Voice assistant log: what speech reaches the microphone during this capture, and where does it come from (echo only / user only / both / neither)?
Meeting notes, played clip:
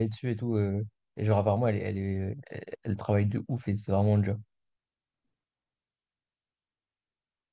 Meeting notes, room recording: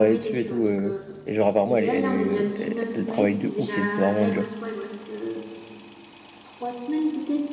both